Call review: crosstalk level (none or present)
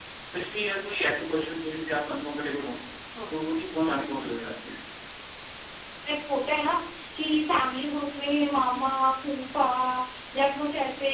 none